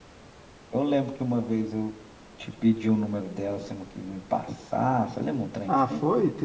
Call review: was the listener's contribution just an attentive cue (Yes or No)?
No